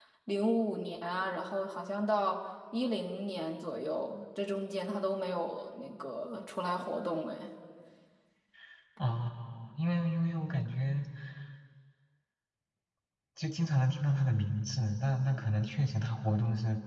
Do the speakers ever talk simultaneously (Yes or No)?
No